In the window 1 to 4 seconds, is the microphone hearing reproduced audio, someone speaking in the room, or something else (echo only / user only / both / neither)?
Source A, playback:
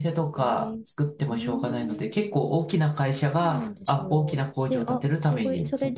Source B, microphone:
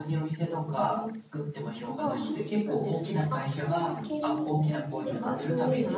both